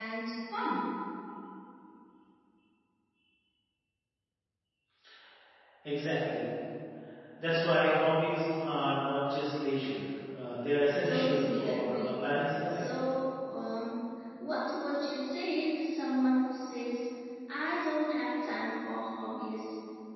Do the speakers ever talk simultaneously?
Yes, from 11.0 s

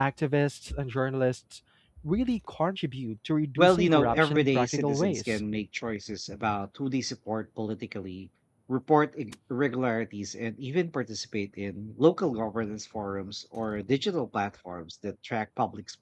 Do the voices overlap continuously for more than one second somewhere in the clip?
Yes, from 3.6 s

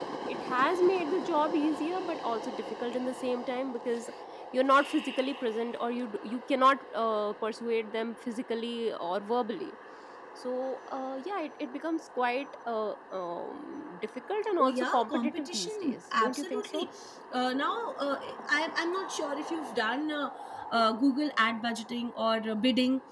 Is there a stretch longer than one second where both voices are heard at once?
Yes, from 14.6 s

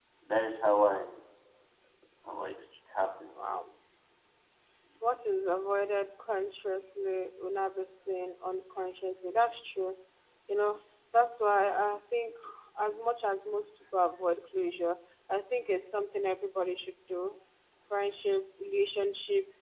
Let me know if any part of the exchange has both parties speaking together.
No

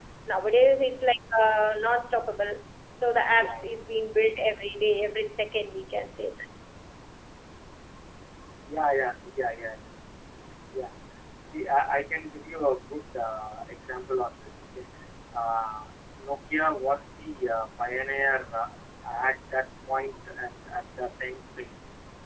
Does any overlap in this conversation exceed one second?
No

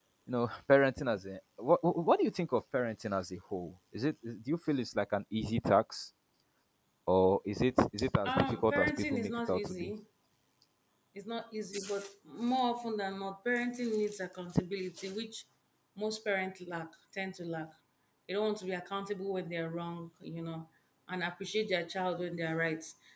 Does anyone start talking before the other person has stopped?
Yes, from 8.2 s

